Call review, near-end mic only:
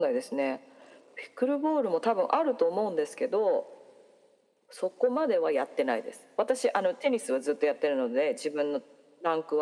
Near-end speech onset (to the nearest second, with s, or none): none